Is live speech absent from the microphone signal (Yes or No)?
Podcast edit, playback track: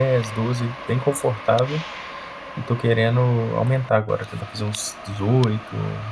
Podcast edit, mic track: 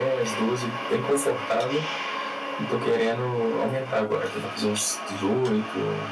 Yes